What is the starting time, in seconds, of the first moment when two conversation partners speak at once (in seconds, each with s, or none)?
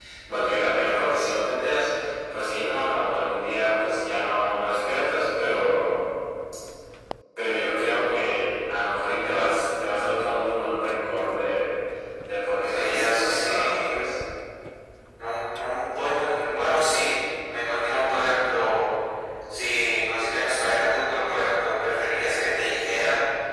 12.6 s